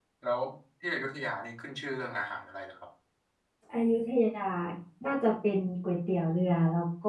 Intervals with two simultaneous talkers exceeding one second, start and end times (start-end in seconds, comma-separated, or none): none